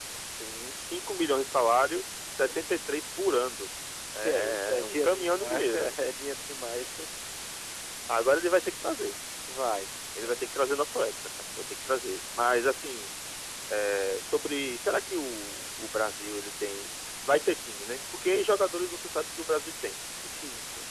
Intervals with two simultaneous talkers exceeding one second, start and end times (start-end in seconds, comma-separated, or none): 4.2-6.0